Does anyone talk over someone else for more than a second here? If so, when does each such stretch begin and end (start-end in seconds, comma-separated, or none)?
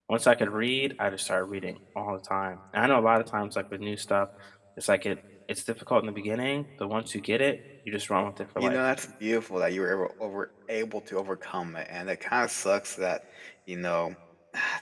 none